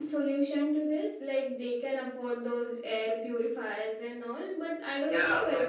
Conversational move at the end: taking over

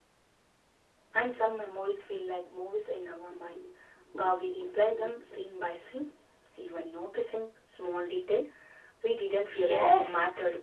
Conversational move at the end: taking over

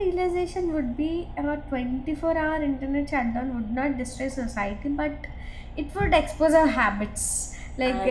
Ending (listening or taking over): listening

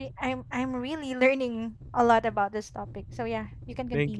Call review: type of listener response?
taking over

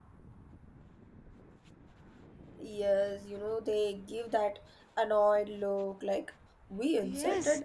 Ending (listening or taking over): taking over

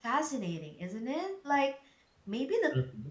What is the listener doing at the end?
listening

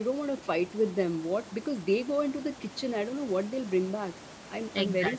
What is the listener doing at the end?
taking over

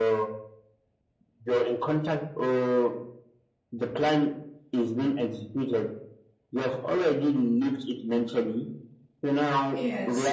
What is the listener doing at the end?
listening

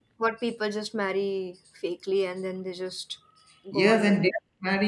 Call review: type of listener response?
taking over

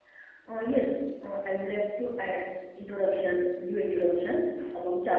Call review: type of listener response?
listening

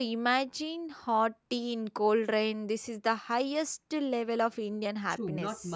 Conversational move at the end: taking over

